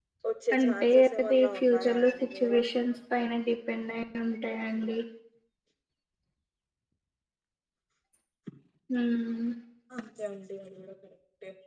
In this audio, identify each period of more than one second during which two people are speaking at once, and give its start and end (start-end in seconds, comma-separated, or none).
0.5-2.6